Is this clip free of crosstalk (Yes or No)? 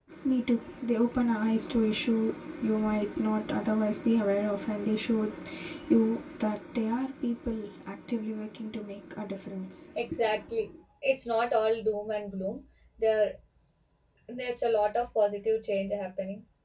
Yes